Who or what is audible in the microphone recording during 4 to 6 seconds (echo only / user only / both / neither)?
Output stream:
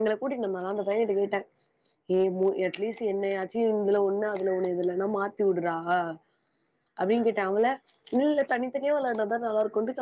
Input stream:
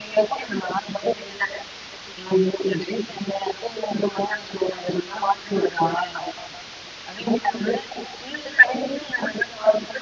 echo only